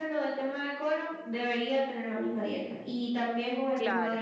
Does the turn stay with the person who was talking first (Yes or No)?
Yes